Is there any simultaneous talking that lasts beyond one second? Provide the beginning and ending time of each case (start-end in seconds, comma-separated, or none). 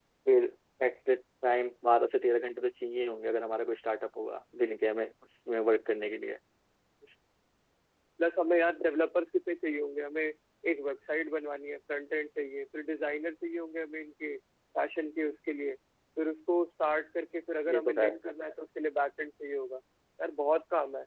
none